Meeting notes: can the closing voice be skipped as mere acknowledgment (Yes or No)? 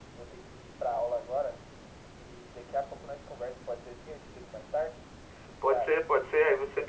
No